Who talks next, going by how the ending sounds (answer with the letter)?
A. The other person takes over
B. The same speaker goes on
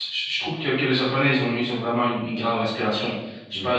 B